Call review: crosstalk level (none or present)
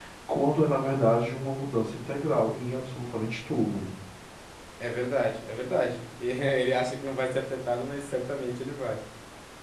none